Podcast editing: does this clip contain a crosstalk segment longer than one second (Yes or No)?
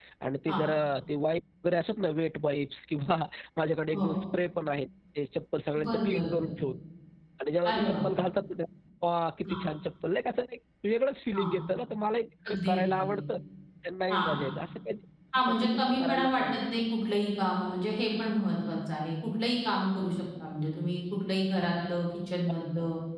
Yes